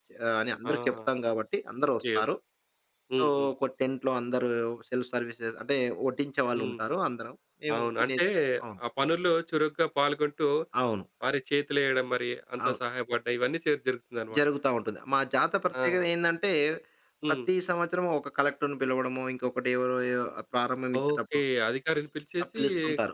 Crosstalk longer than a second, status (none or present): none